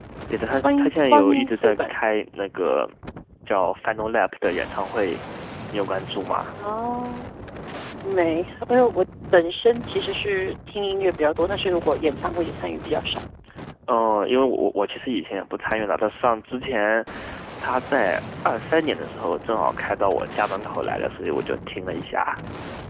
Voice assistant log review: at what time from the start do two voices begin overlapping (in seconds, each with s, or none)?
0.6 s